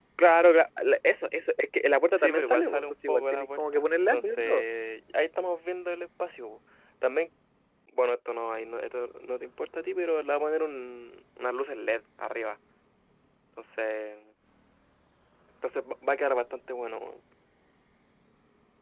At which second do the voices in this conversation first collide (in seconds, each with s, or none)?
2.2 s